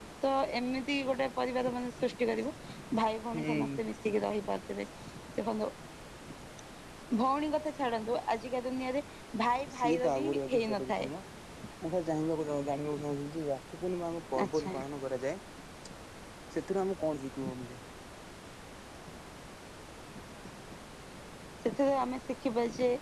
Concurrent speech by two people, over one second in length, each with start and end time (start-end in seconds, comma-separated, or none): 9.7-11.1